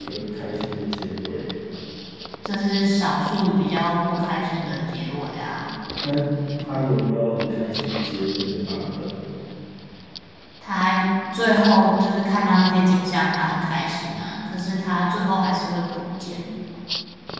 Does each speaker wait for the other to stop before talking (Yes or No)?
Yes